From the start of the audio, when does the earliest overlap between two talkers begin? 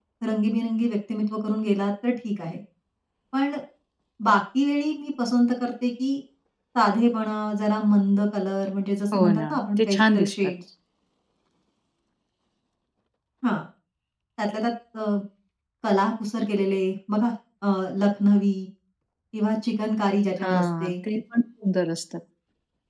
9.1 s

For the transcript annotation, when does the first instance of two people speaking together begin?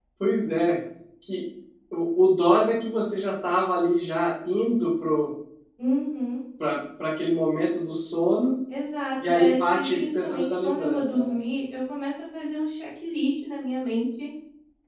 9.4 s

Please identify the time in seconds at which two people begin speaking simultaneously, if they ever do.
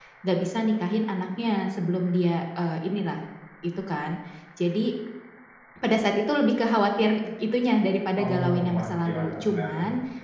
8.2 s

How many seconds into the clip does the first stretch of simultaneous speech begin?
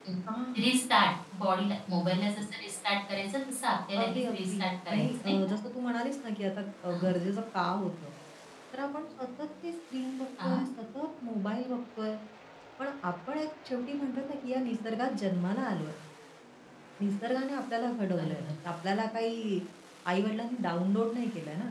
4.0 s

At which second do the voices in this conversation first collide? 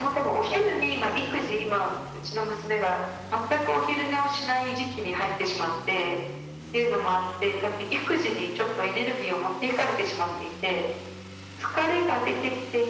none

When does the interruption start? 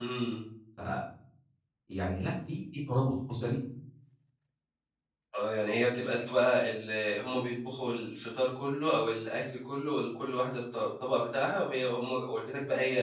none

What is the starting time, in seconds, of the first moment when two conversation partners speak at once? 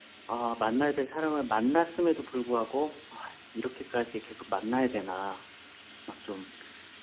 none

